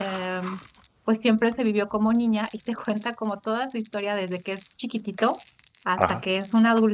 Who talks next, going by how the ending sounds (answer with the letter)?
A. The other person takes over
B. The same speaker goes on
B